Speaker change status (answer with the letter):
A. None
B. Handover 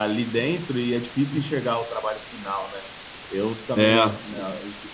A